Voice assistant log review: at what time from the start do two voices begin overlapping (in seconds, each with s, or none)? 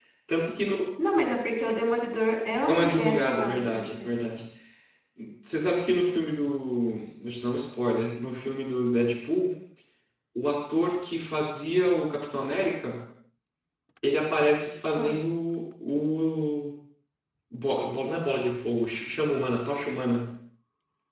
2.7 s